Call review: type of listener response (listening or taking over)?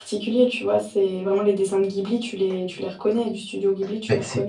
taking over